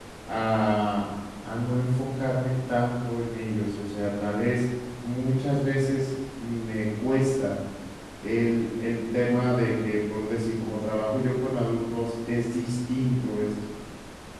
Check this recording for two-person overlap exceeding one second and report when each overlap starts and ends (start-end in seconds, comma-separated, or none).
none